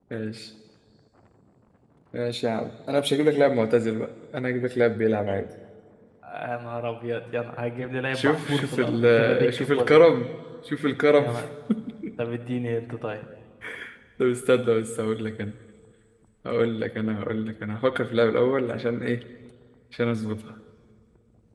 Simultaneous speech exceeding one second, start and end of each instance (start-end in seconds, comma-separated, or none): 8.1-10.0